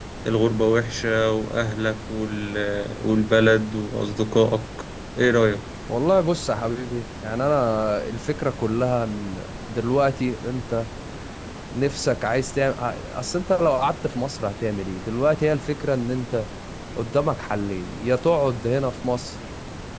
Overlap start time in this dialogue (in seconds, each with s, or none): none